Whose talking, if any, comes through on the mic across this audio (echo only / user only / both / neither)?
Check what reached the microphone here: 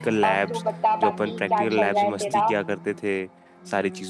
both